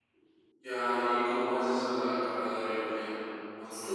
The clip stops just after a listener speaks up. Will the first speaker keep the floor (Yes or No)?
No